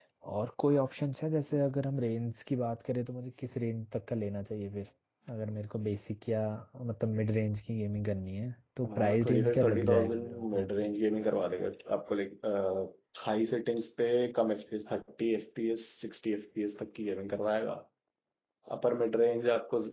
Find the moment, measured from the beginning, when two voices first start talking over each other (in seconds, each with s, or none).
8.8 s